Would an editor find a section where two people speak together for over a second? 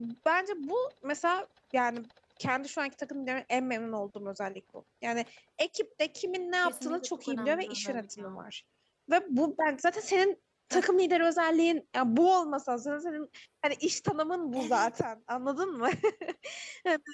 Yes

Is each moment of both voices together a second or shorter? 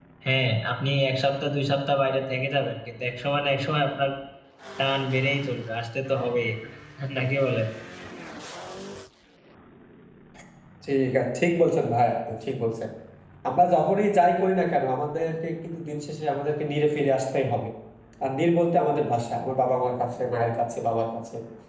Yes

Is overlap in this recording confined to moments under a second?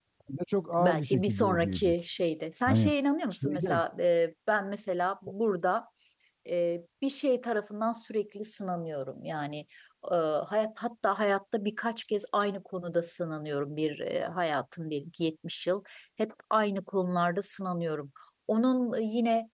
No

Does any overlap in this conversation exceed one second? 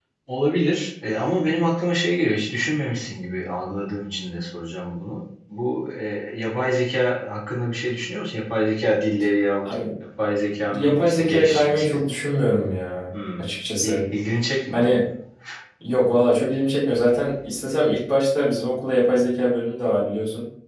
Yes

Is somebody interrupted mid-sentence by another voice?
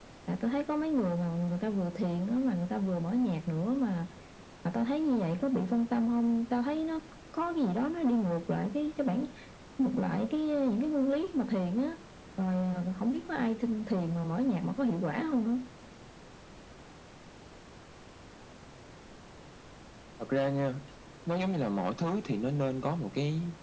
No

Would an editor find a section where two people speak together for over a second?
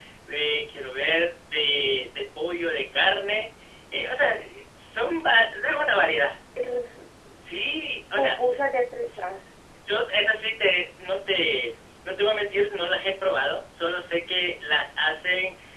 No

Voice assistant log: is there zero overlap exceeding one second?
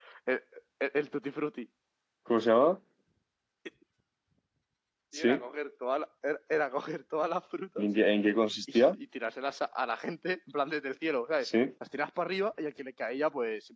Yes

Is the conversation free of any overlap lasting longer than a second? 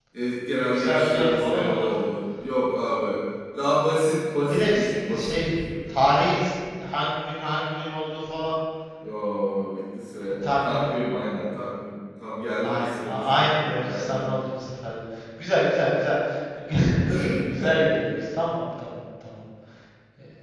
No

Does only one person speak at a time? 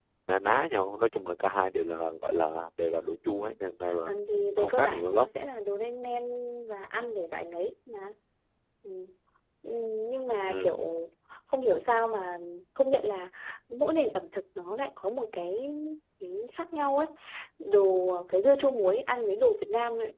No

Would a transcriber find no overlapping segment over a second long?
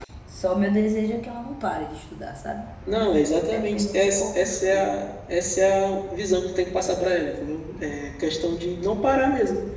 No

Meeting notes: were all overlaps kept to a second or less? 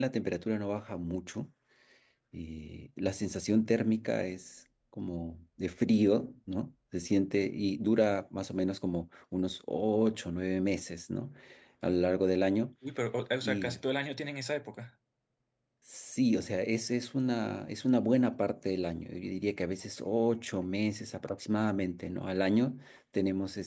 Yes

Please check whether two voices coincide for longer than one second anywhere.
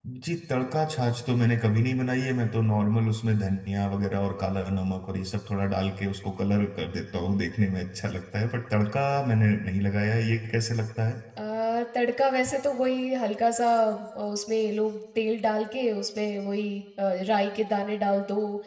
No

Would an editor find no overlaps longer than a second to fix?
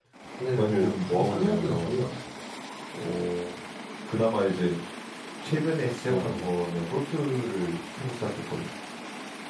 No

